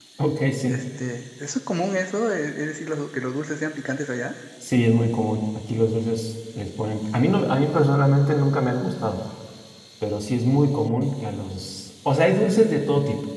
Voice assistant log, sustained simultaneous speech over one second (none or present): none